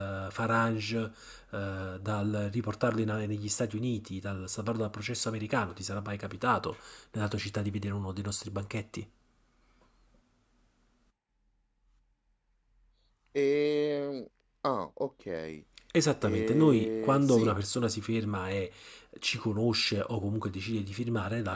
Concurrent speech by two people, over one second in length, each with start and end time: 16.2-17.6

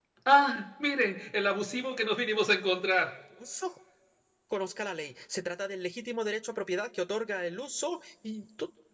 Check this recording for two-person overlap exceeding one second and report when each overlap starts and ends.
none

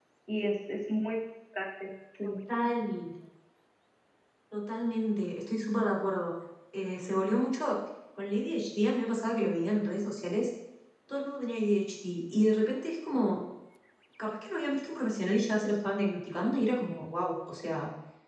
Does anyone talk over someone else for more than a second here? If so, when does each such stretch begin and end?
none

